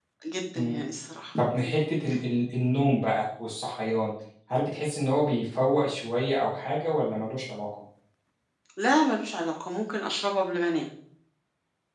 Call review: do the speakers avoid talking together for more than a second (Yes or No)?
Yes